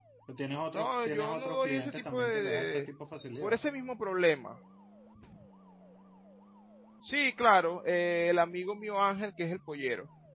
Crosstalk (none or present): present